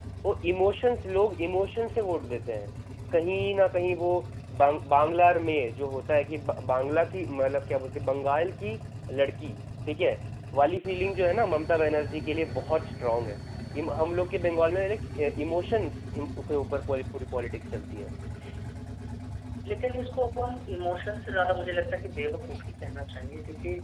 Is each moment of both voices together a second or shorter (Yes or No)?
Yes